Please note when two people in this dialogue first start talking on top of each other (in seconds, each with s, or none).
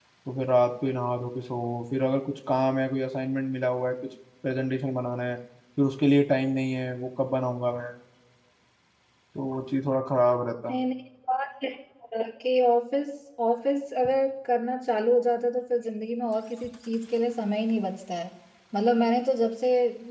none